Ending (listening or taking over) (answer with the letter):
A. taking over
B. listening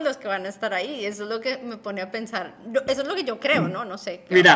A